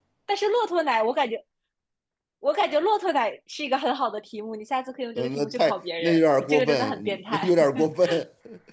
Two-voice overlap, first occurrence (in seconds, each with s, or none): 5.2 s